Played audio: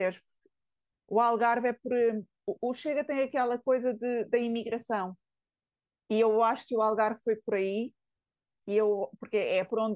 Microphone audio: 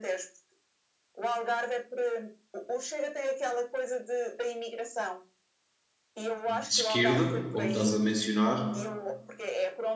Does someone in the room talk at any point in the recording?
Yes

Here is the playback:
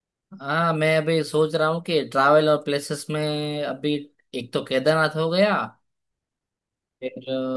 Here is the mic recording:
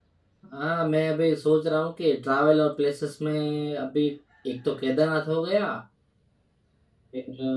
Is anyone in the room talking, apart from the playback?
No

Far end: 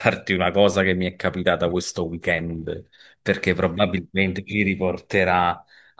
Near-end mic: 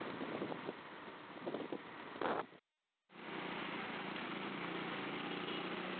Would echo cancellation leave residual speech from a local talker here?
No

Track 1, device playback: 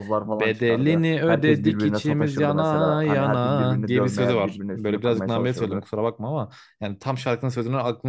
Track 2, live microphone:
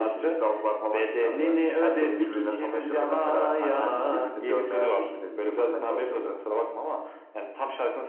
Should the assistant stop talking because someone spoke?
Yes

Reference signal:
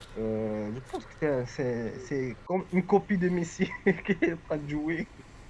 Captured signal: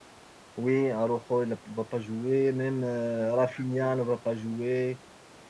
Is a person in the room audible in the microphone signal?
Yes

